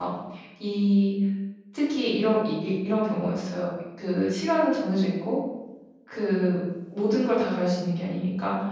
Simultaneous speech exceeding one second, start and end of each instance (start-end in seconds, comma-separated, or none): none